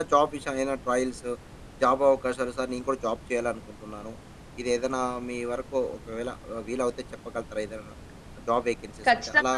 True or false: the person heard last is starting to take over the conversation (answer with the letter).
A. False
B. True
B